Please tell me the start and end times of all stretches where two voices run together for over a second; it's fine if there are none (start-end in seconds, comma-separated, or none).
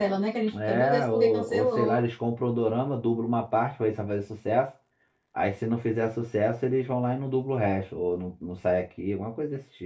0.5-2.0